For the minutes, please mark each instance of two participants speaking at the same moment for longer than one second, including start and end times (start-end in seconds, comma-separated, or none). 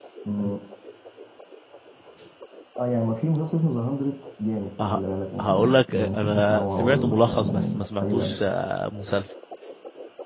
5.4-8.4